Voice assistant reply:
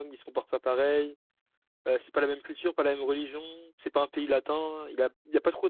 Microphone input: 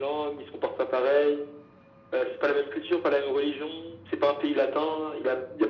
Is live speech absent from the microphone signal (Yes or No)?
Yes